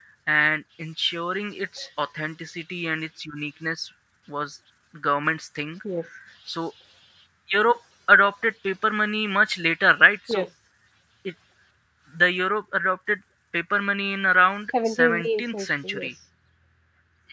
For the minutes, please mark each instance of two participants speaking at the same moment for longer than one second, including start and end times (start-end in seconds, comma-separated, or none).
14.9-16.1